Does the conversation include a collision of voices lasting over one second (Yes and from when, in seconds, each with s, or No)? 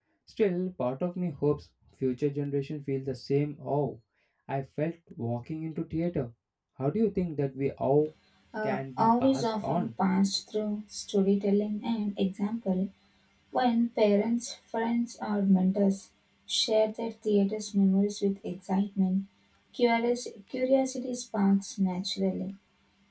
Yes, from 8.6 s